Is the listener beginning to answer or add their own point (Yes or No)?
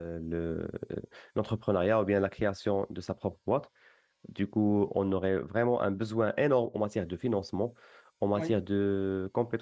No